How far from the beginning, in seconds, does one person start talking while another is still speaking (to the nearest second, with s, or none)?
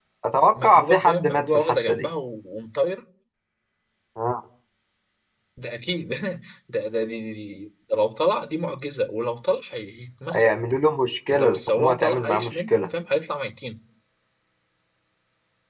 1 s